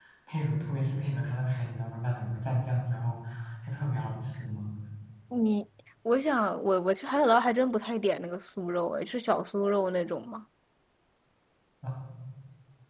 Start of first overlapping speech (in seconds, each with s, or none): none